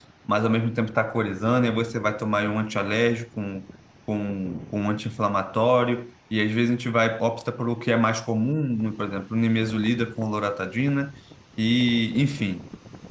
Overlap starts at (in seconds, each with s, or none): none